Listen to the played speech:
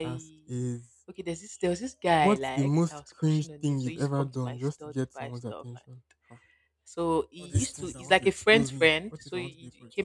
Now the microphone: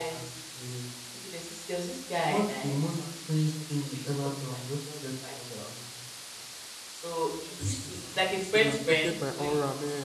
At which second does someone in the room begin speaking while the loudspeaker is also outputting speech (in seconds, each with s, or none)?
8.5 s